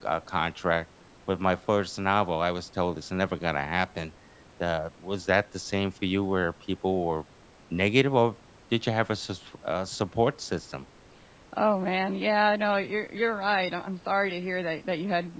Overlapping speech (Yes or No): No